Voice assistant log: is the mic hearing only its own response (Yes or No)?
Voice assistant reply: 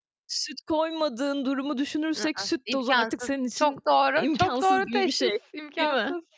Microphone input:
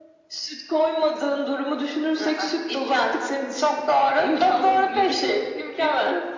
Yes